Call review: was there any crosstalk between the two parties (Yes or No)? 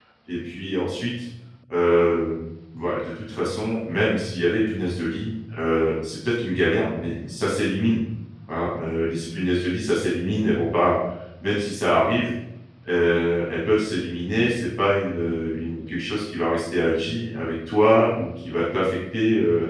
No